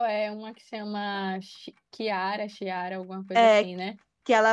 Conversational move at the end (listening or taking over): taking over